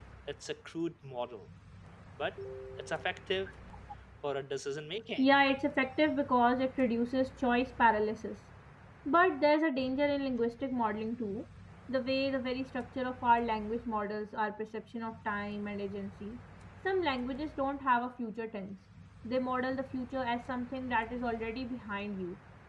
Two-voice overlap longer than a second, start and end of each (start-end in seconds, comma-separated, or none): none